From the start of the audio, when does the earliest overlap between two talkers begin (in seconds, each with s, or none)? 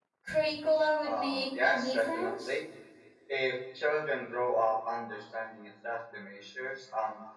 1.0 s